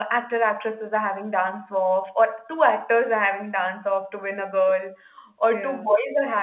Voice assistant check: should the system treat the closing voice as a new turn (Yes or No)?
No